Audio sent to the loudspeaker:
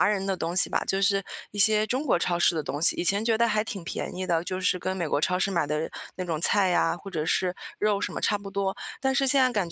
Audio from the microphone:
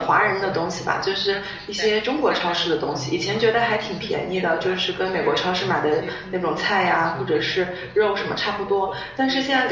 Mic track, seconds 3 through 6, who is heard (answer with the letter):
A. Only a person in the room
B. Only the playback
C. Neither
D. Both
D